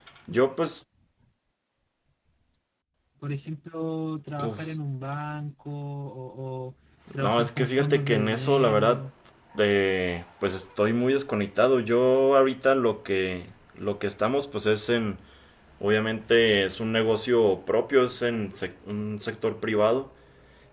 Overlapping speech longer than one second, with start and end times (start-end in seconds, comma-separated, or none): 7.2-9.0